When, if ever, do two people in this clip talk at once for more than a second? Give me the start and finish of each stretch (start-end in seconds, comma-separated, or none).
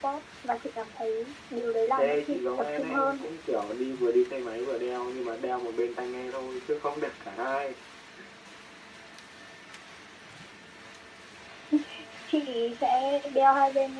2.0-3.2